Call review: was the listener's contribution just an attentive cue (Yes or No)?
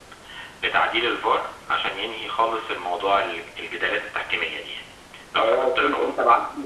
No